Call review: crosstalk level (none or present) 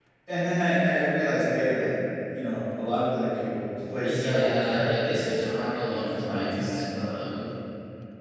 present